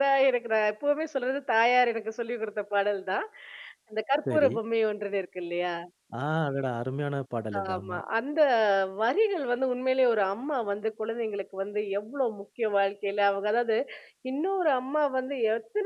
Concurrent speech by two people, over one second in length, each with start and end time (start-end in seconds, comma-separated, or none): none